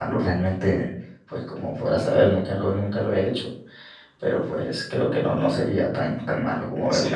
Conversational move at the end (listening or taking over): taking over